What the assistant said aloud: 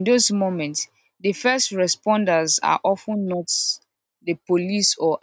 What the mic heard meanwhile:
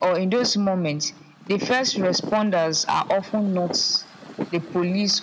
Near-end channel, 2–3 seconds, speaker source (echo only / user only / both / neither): echo only